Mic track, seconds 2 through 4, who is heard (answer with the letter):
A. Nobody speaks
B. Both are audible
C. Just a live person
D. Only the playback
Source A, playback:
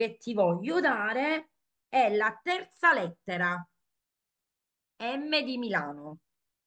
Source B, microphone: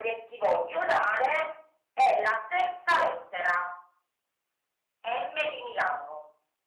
D